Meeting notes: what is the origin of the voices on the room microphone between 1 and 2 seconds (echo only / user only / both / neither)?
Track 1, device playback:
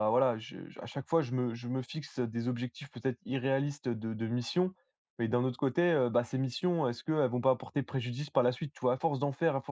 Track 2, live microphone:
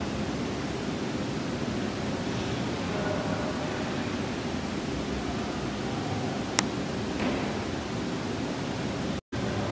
neither